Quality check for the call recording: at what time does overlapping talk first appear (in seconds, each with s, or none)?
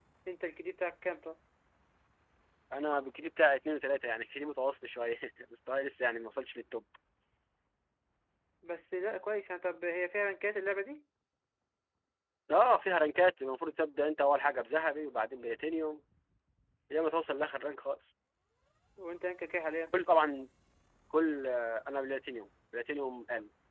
none